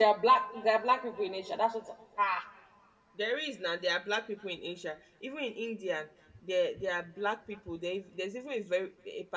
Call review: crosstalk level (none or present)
none